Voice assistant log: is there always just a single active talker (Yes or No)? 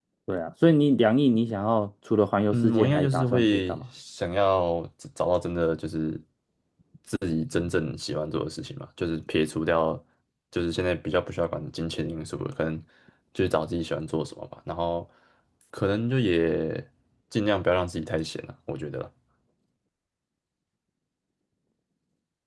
No